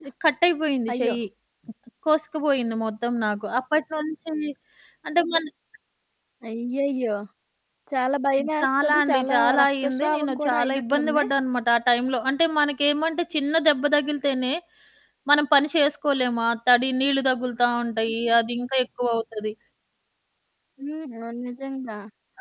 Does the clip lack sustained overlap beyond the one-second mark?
No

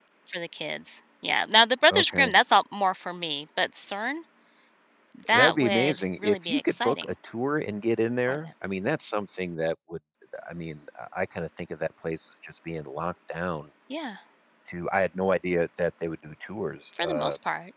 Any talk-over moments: Yes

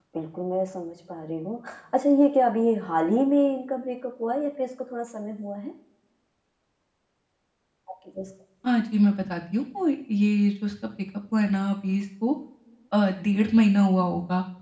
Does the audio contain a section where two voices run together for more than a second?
No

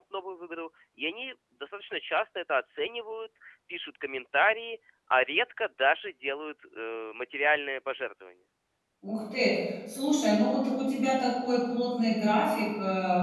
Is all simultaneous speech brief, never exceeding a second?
Yes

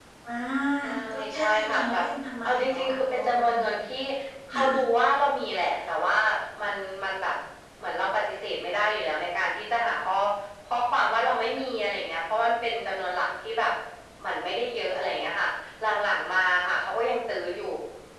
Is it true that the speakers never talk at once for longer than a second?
No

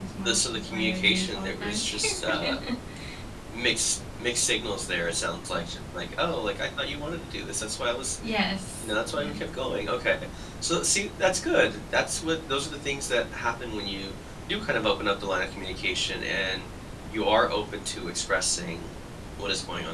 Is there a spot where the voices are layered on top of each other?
Yes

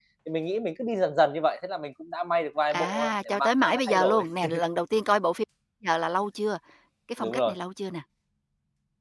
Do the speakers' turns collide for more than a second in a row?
Yes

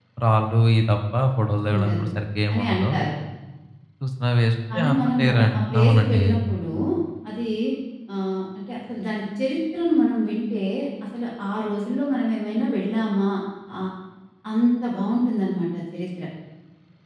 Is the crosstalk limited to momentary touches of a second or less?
No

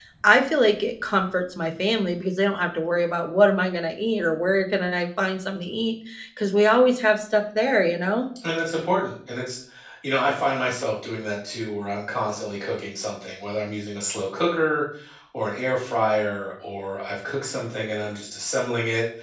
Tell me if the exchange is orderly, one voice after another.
Yes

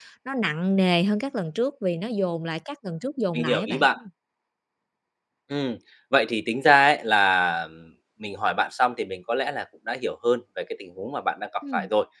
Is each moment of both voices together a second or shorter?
Yes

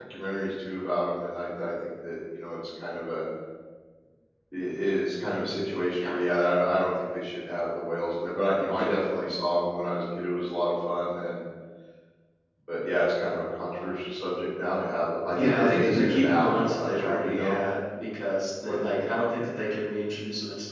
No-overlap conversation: No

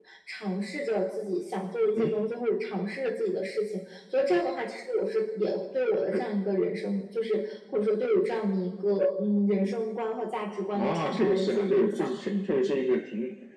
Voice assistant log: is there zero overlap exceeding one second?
No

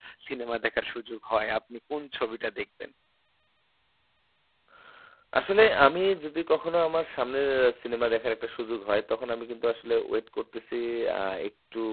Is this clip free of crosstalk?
Yes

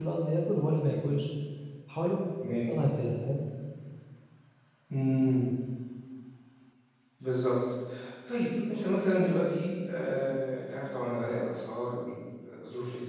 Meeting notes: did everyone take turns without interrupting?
Yes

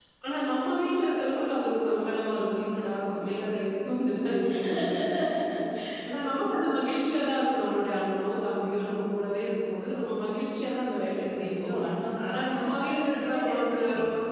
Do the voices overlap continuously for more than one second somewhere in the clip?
Yes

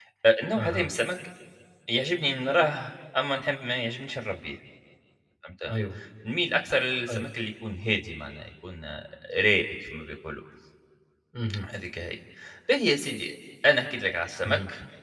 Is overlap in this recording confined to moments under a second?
Yes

